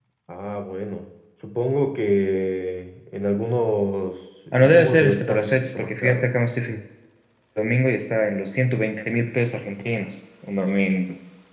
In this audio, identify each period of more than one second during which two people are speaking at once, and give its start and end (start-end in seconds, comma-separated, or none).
4.5-6.2